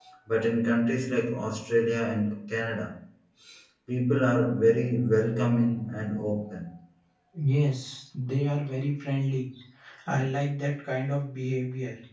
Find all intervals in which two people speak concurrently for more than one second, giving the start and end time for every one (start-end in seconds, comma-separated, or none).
none